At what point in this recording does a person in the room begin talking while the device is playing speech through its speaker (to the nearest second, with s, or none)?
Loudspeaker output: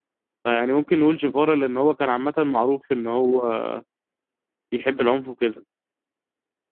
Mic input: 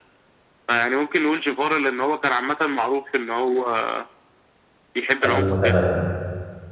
5 s